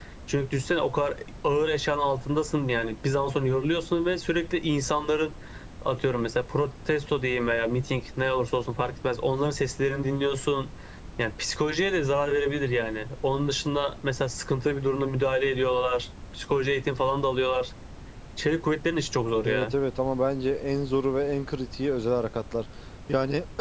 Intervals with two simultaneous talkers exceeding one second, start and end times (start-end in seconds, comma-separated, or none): none